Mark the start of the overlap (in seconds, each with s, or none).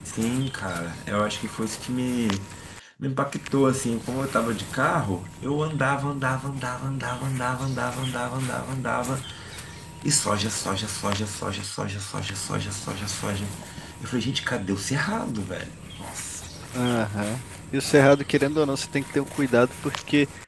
none